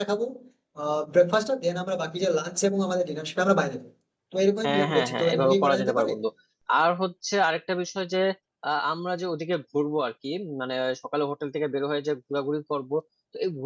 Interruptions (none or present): present